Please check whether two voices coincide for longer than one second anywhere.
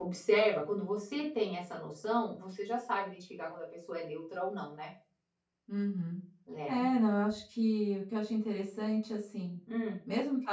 No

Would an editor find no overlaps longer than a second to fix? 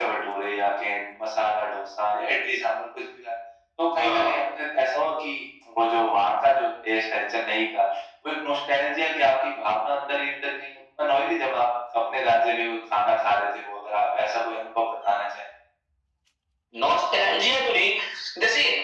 Yes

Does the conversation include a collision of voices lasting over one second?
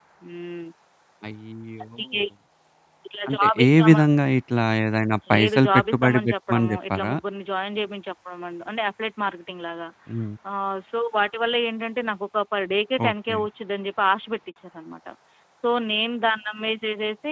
Yes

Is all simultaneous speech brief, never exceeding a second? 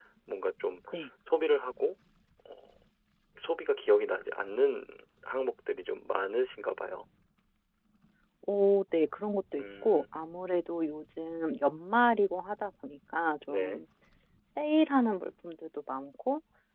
Yes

